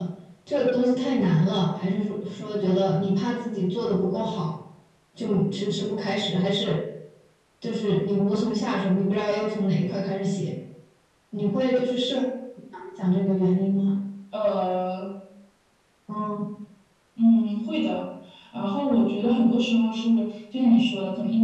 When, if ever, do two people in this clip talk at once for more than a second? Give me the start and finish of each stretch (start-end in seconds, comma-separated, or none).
none